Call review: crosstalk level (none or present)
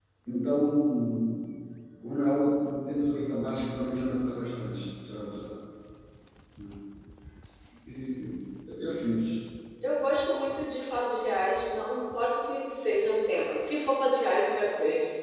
none